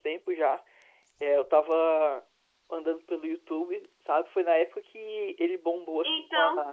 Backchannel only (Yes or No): Yes